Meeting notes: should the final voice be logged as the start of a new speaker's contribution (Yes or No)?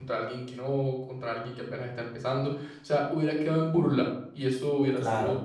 No